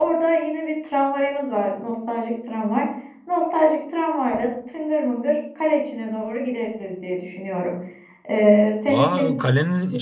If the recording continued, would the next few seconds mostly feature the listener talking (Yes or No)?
Yes